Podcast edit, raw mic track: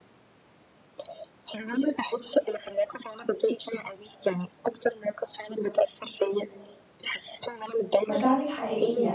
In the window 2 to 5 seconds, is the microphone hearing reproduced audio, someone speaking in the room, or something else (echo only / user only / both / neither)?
echo only